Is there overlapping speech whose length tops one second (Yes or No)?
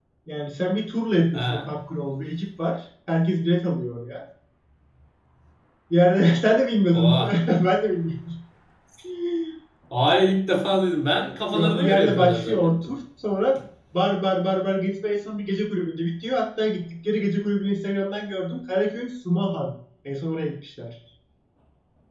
Yes